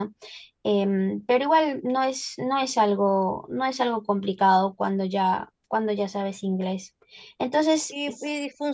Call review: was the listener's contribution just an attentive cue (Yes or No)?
No